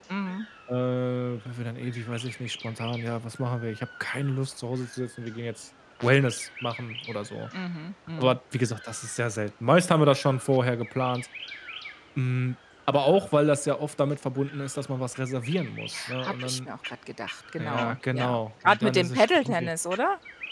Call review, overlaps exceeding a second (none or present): present